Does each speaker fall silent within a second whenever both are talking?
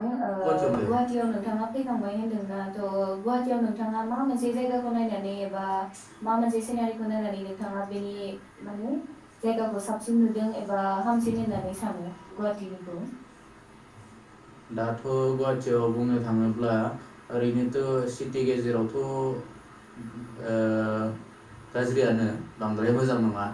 Yes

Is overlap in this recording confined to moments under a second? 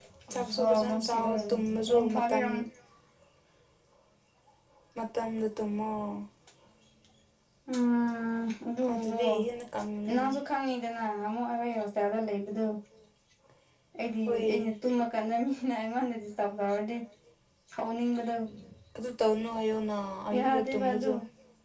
No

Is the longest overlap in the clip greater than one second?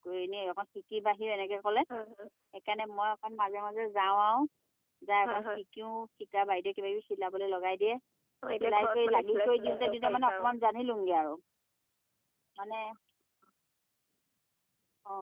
Yes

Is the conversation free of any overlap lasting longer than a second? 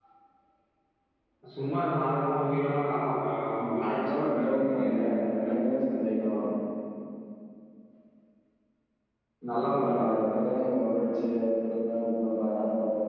No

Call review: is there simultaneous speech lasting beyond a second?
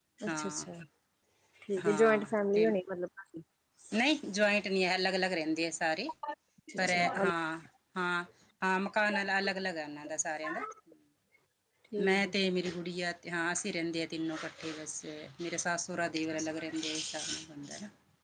No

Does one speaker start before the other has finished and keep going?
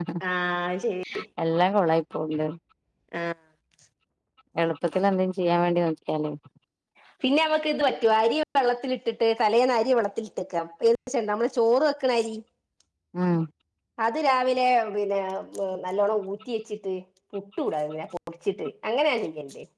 No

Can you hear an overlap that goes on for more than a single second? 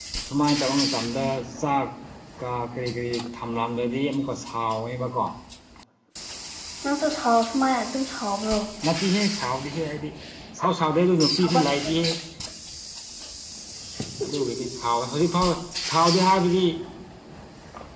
No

